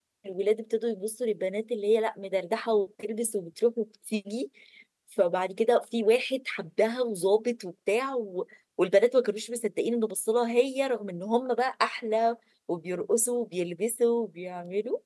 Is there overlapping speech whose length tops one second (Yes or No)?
No